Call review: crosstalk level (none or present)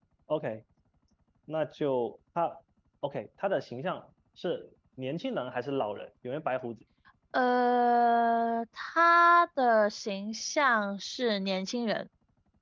none